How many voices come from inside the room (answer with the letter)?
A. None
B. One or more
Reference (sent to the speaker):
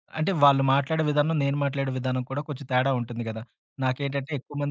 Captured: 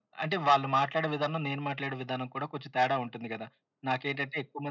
A